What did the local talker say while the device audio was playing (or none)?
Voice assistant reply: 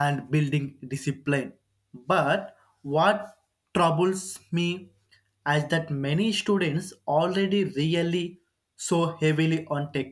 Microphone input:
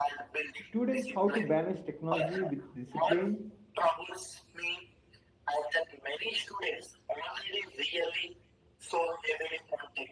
students how to balance technology with discipline